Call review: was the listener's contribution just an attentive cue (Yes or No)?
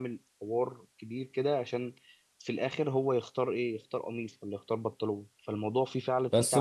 No